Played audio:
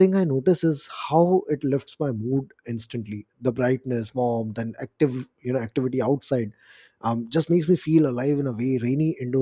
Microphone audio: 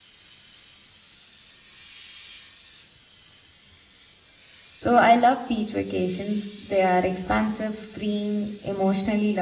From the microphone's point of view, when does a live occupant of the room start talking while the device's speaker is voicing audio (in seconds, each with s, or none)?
4.8 s